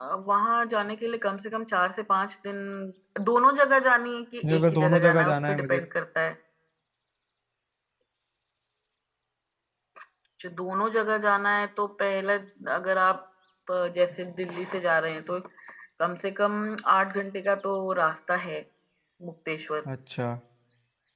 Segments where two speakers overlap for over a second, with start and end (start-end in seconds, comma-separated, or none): 4.5-5.8